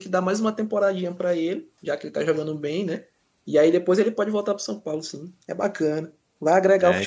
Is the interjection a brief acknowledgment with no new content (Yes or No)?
No